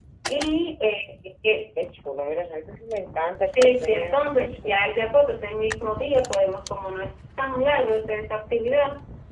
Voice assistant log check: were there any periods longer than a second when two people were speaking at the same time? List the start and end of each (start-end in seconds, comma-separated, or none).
3.4-4.9